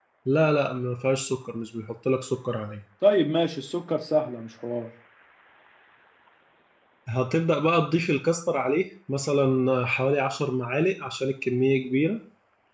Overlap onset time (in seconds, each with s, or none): none